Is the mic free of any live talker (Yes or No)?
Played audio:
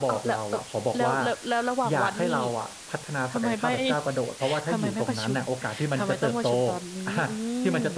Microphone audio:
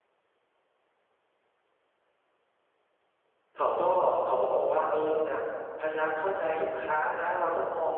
No